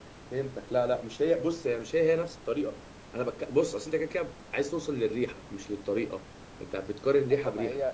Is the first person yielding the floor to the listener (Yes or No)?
Yes